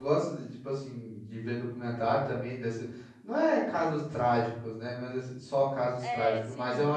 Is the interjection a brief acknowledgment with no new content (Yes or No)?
Yes